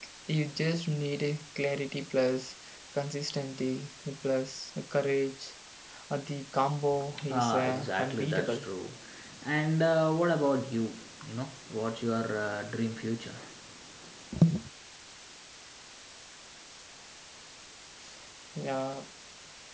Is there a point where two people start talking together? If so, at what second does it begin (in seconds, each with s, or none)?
7.4 s